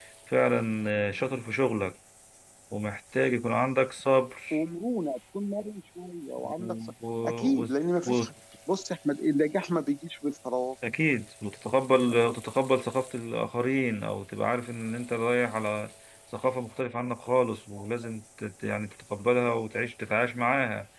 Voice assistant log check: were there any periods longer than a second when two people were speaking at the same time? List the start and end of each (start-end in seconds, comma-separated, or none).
none